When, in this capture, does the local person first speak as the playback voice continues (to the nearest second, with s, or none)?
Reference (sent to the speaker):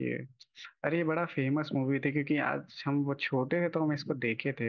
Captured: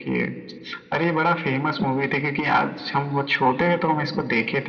none